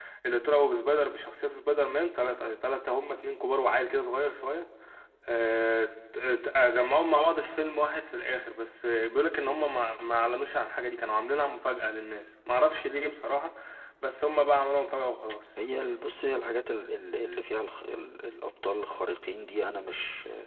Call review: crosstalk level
none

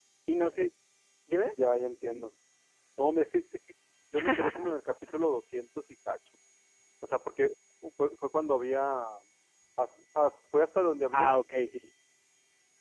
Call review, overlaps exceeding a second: none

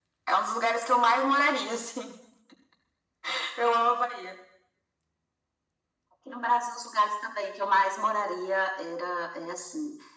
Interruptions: none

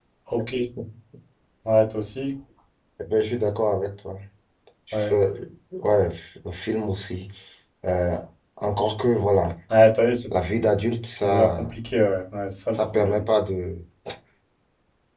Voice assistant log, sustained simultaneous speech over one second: none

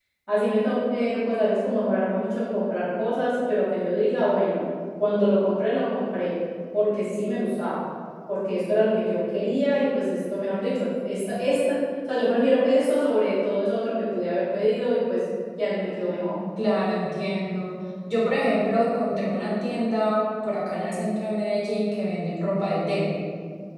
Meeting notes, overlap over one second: none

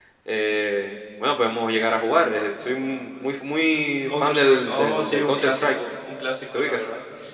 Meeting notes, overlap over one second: present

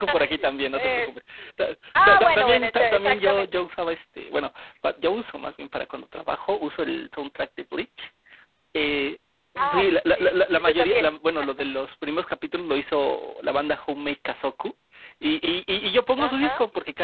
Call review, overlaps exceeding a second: present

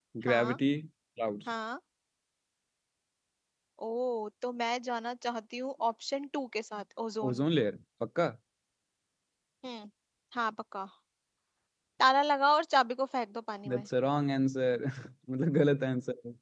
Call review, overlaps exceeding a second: none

